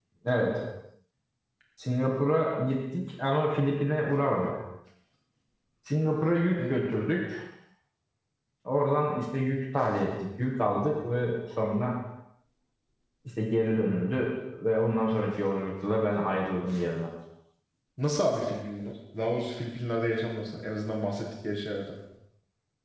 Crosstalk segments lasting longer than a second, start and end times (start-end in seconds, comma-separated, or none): none